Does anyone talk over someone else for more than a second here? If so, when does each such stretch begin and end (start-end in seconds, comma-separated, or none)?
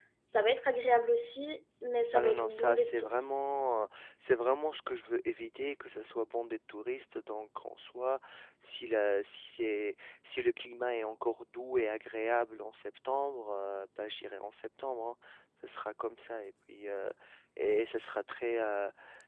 2.1-3.4